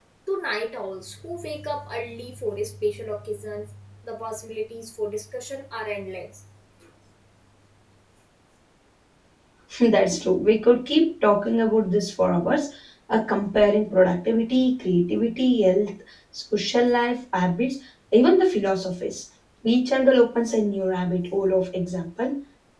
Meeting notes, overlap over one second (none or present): none